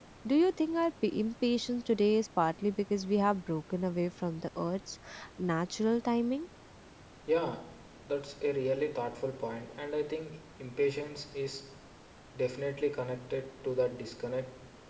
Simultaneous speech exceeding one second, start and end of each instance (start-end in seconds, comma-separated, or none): none